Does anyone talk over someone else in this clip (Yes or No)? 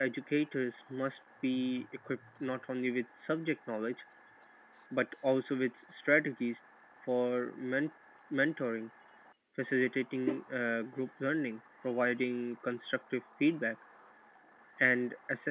No